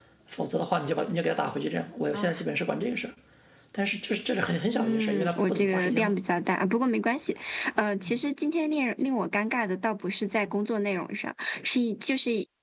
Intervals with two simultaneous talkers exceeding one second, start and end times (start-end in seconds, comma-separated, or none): 4.7-6.2